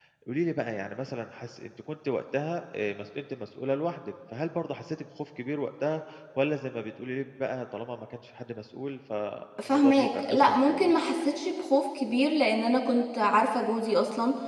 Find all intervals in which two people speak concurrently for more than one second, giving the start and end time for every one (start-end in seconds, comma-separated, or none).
9.6-10.9